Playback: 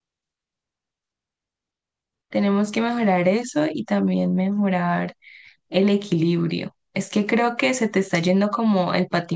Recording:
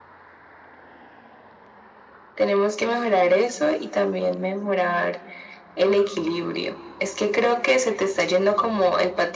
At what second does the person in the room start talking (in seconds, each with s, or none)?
none